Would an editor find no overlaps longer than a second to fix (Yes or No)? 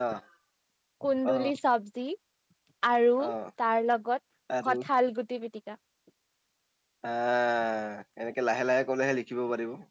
Yes